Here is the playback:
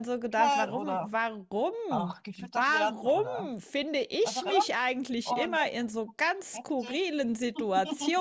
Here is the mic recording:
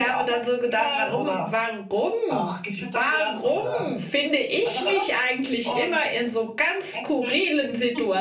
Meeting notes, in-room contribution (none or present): none